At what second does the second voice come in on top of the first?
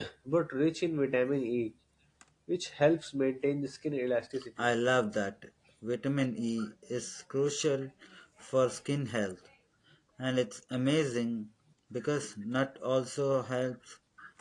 none

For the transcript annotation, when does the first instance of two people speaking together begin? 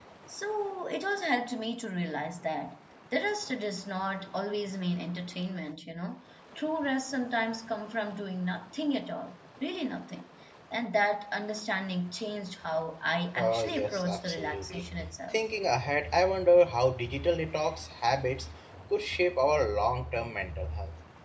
13 s

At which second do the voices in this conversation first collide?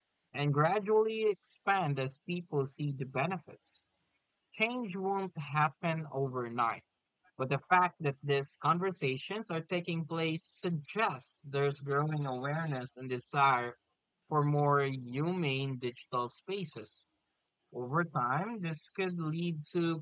none

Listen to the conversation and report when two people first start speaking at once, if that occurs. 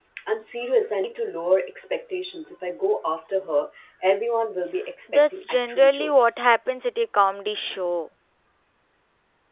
5 s

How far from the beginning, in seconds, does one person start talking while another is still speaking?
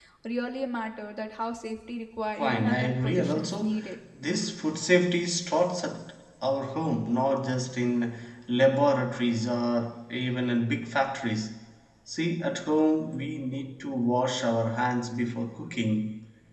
2 s

